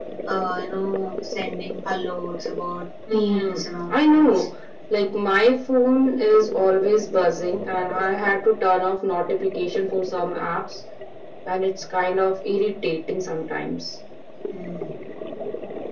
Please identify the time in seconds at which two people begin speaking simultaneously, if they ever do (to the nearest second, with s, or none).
3 s